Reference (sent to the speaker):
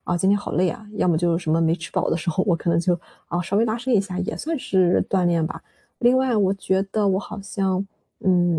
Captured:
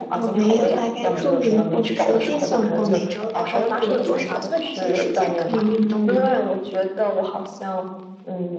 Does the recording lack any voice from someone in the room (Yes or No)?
No